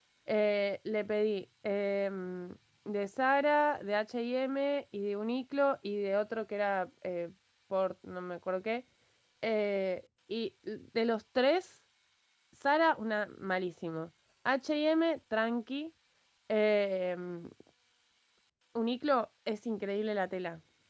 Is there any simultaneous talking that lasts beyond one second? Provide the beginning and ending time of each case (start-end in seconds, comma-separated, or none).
none